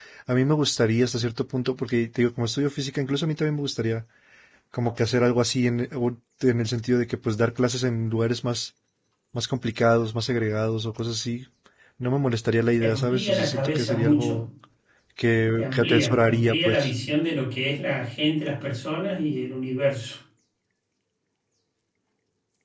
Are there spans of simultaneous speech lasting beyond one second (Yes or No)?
Yes